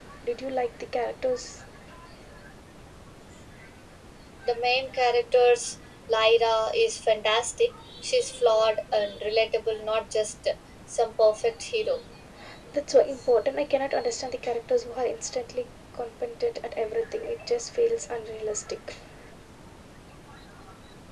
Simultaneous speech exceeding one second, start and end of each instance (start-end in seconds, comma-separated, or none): none